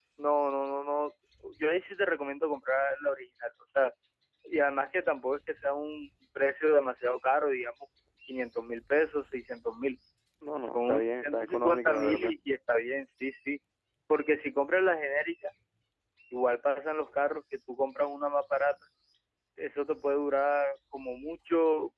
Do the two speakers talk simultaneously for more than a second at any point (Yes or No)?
Yes